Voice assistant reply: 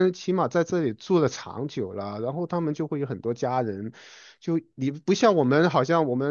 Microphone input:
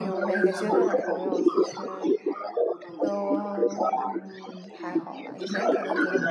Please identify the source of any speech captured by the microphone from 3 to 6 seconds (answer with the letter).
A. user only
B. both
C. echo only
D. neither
B